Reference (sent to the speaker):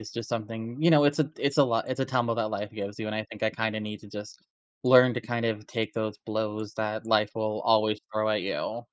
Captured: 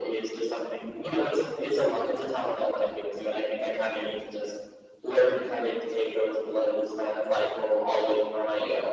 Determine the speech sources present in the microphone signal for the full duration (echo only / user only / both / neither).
echo only